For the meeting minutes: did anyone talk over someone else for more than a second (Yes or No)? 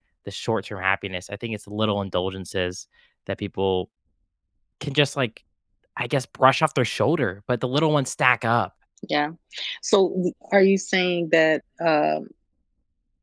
No